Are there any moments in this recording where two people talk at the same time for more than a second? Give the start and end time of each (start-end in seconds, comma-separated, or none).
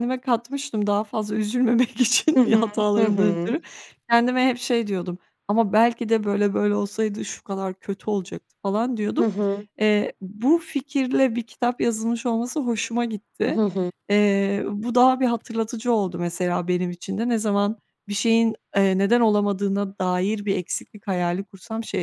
2.3-3.5